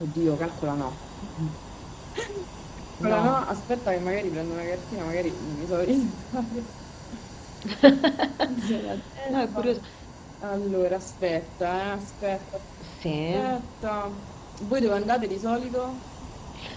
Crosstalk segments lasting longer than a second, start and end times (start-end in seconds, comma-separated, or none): none